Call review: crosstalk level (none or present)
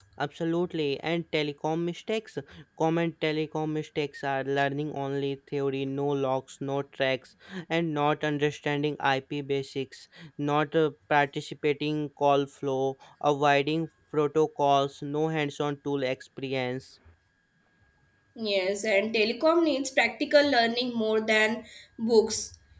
none